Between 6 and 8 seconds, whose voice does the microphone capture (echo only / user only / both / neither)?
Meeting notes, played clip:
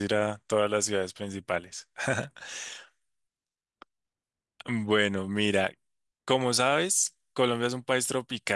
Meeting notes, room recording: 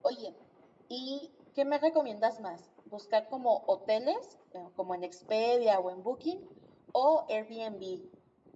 user only